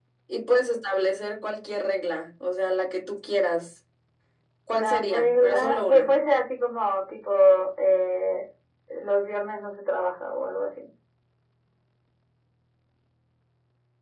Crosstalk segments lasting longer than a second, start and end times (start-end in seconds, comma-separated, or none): 4.7-6.2